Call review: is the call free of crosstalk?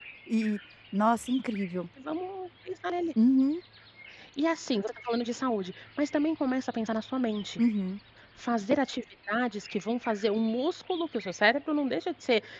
Yes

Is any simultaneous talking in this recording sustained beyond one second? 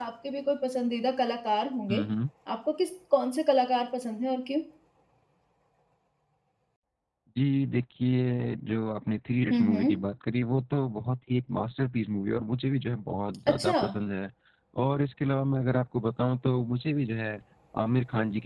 No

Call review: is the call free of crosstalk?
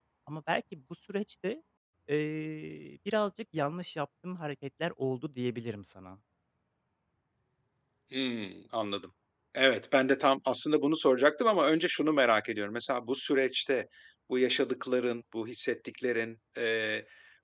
Yes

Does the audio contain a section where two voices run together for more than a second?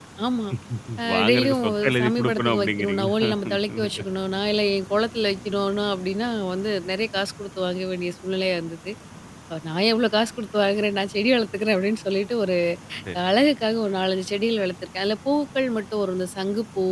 Yes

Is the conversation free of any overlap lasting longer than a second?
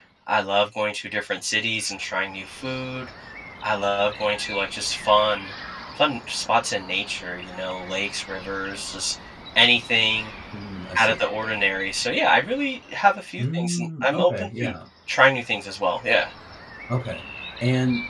No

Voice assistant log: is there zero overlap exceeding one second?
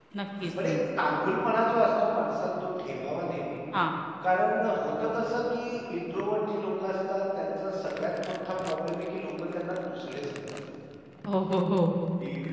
Yes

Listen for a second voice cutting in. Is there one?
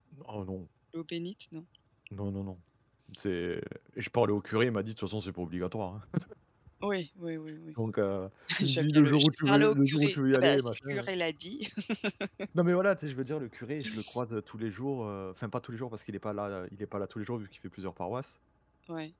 Yes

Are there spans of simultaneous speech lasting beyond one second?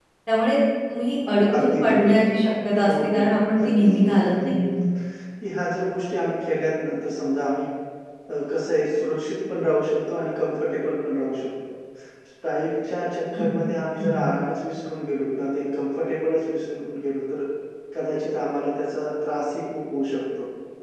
Yes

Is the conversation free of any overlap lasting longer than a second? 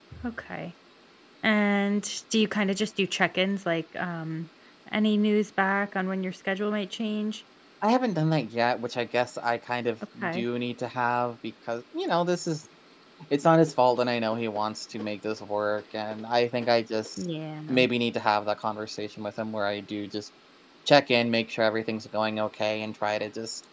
Yes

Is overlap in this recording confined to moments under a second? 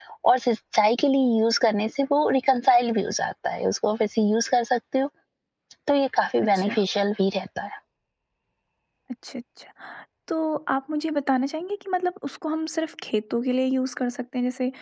Yes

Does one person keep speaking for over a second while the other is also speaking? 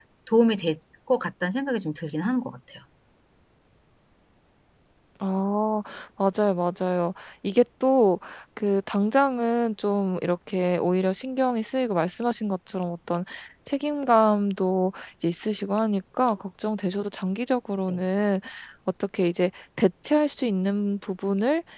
No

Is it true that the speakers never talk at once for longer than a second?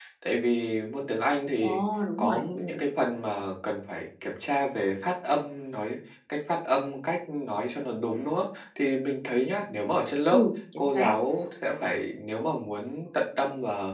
Yes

